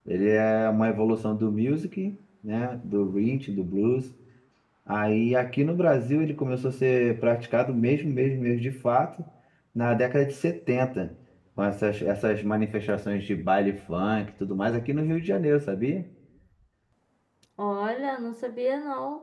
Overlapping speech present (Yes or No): No